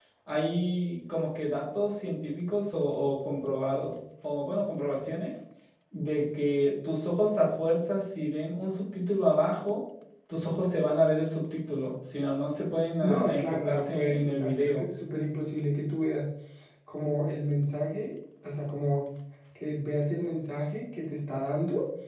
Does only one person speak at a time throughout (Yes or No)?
No